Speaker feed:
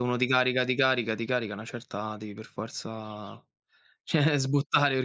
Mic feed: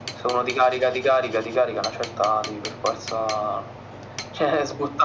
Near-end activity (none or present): none